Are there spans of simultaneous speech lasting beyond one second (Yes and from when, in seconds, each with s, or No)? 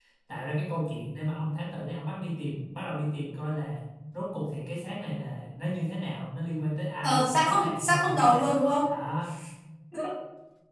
Yes, from 7.0 s